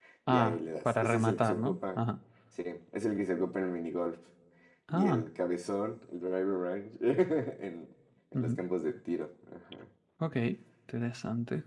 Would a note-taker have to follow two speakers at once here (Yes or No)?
Yes